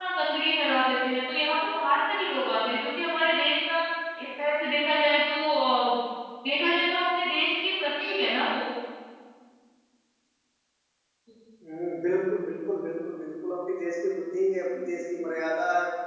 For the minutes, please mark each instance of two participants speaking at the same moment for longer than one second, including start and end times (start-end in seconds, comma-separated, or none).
none